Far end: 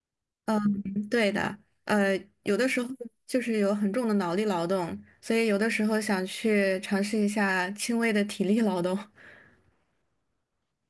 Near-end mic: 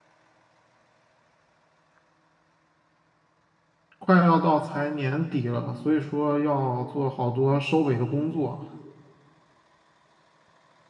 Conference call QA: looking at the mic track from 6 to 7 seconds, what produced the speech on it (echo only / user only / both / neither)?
user only